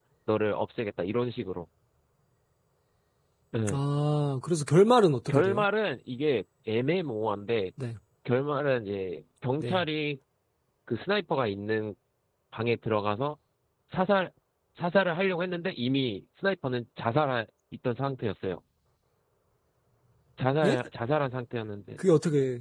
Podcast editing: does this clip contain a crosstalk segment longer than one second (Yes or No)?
No